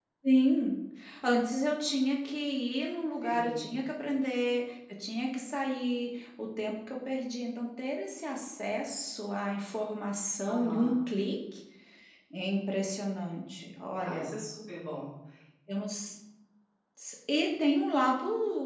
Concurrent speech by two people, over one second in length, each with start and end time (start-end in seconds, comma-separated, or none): none